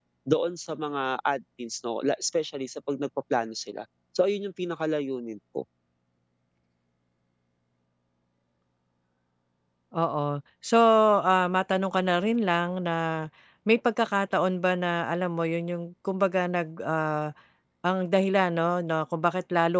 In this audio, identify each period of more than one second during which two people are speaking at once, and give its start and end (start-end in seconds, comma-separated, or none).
none